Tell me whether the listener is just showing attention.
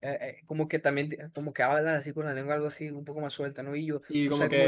No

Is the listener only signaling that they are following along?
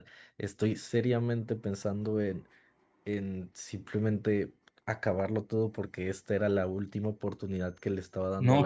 No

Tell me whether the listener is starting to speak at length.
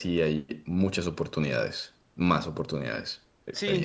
Yes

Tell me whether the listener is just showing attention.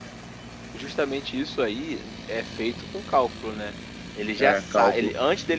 Yes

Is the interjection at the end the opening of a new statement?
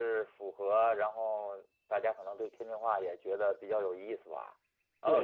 Yes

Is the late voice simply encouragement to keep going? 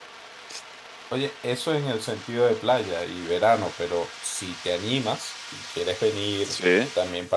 Yes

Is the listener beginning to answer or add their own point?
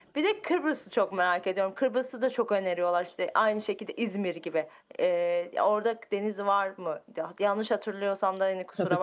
Yes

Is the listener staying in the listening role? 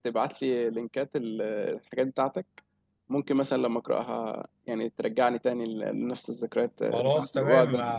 No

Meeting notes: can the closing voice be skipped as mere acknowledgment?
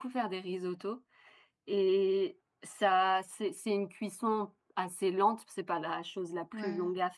Yes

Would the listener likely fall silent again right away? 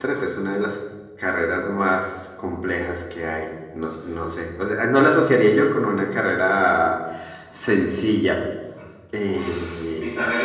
No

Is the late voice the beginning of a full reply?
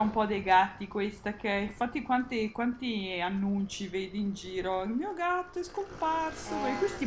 No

